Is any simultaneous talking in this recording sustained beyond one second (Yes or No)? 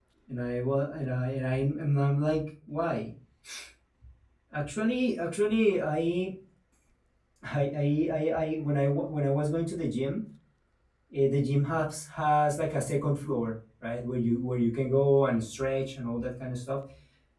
No